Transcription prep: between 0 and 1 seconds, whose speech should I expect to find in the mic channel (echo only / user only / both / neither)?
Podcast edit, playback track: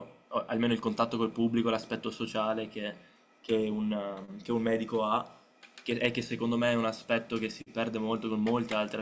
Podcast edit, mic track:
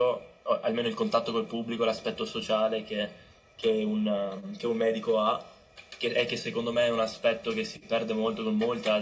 echo only